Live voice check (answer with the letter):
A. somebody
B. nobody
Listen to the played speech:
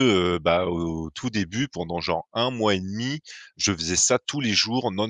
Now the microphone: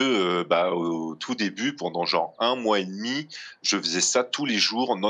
B